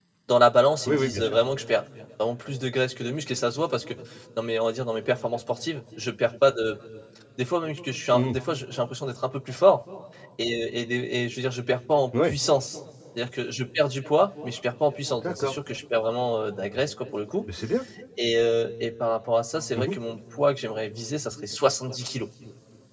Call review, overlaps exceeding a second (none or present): none